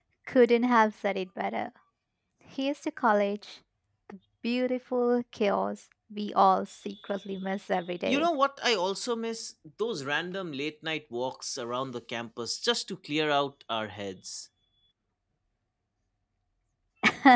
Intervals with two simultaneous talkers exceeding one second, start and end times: none

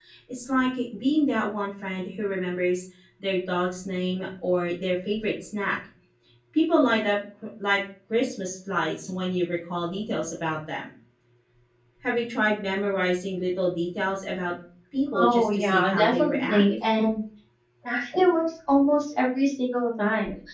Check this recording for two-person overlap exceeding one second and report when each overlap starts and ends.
15.2-16.6

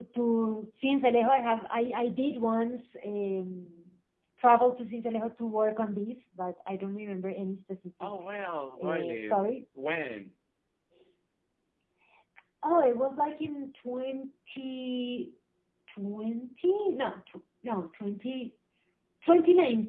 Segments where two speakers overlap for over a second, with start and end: none

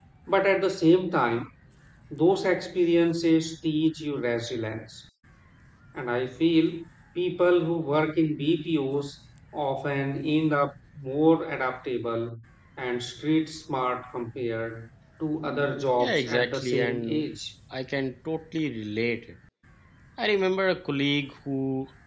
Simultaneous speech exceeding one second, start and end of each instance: 16.0-17.3

